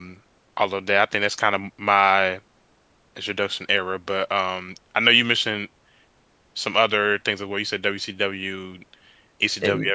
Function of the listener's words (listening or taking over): listening